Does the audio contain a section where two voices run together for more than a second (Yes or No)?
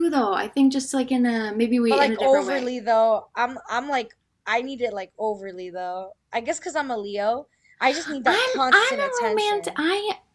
Yes